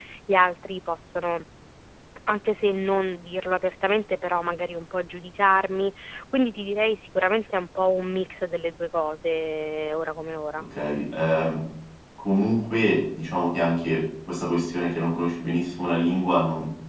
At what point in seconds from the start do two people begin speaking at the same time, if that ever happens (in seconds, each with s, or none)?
none